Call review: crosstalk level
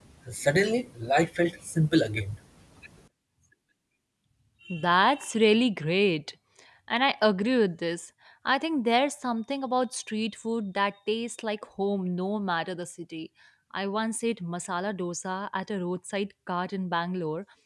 none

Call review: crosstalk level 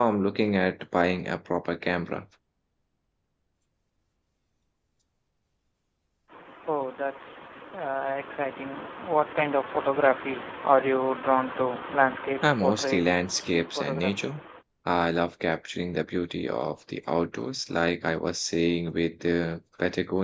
present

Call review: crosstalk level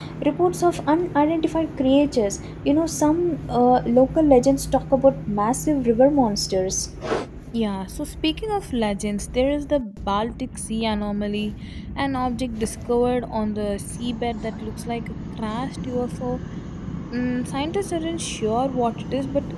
none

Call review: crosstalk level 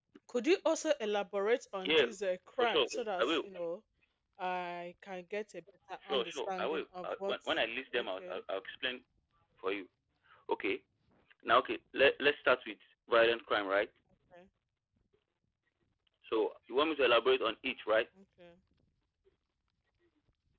present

